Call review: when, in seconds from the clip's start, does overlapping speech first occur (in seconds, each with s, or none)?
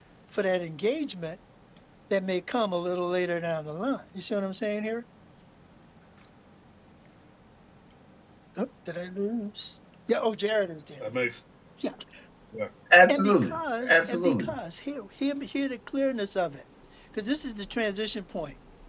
13.1 s